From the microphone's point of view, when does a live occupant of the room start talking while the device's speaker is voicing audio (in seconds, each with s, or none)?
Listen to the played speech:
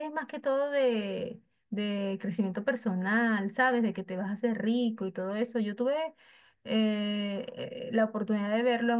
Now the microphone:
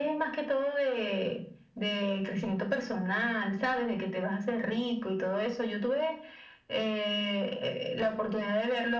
none